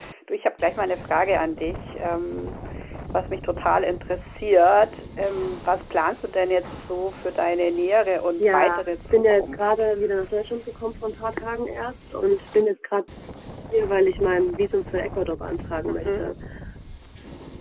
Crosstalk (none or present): present